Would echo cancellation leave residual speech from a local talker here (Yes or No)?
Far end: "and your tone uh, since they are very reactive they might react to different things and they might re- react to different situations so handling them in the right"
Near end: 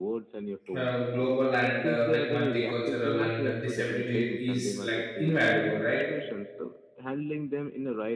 Yes